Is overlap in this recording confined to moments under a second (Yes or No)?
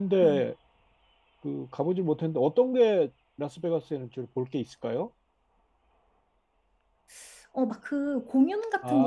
Yes